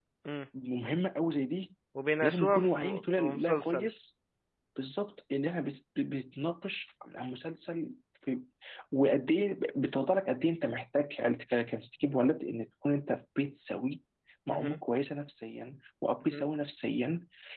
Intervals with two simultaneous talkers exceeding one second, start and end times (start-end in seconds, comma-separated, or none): 2.2-3.9